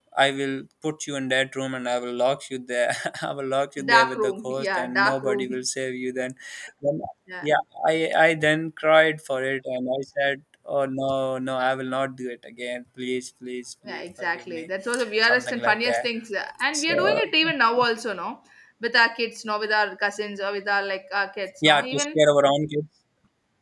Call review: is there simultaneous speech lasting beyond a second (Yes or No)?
Yes